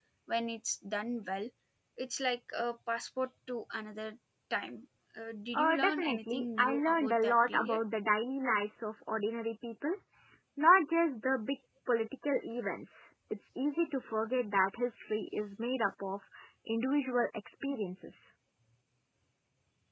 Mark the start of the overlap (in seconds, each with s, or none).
5.5 s